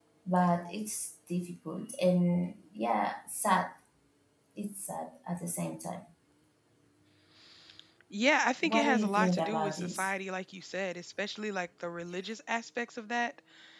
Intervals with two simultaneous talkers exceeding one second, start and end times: 8.6-10.1

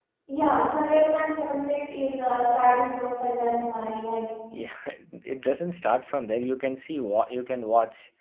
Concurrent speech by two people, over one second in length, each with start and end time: none

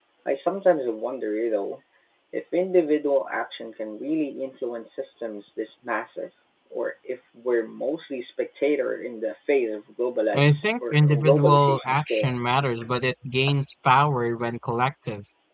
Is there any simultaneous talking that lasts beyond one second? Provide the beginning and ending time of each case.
10.3-12.3

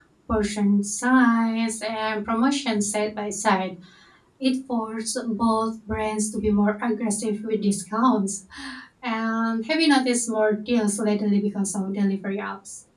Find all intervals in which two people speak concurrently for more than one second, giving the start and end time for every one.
none

